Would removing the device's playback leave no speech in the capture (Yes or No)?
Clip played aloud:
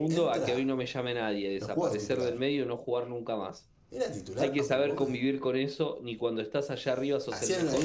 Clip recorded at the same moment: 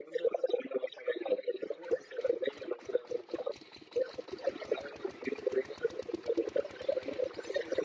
Yes